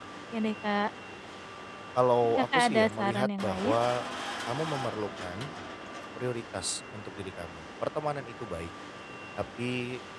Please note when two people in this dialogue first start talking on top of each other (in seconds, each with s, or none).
2.2 s